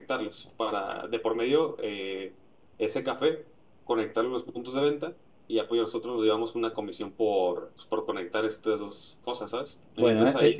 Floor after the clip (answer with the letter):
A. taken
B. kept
A